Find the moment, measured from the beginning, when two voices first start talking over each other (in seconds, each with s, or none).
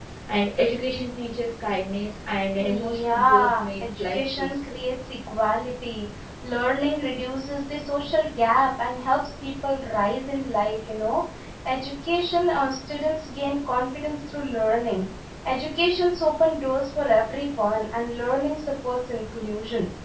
2.6 s